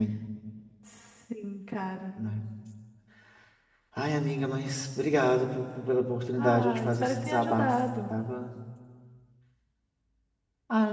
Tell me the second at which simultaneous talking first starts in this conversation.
6 s

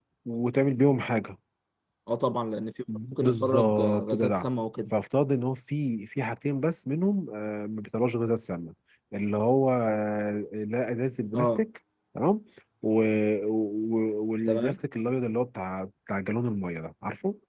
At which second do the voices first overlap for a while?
3 s

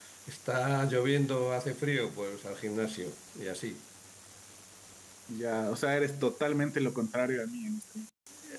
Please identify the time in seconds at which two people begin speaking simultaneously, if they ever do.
none

